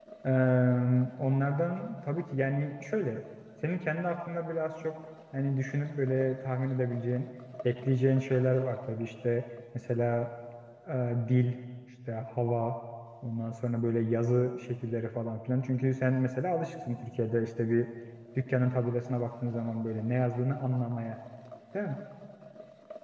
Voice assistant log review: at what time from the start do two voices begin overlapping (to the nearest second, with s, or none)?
none